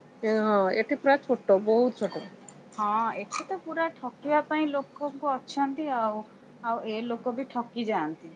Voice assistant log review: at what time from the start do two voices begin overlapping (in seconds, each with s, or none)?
none